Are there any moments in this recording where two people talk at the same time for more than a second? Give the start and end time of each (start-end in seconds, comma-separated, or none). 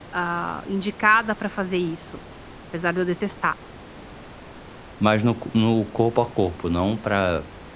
none